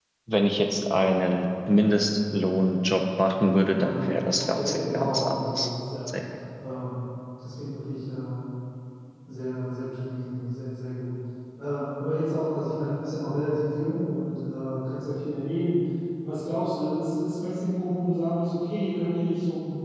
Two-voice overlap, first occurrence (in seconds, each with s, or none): 3.7 s